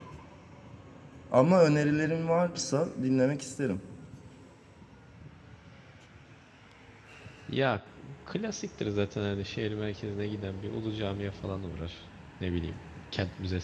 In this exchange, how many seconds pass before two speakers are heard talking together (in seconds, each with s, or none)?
none